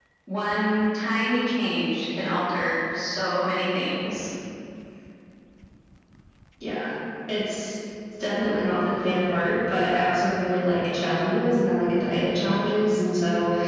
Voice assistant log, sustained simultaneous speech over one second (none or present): none